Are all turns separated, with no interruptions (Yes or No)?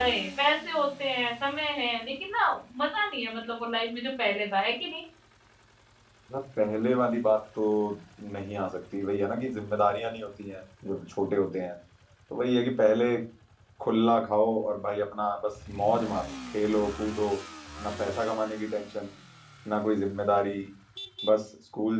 Yes